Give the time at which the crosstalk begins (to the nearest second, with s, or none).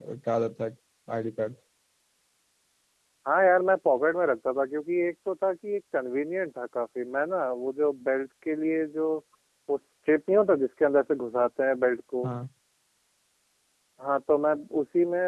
none